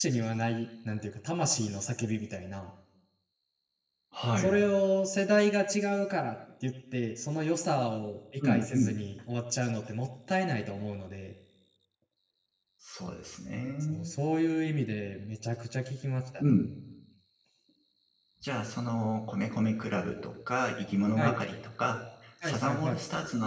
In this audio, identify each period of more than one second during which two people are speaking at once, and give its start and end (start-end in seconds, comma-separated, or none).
none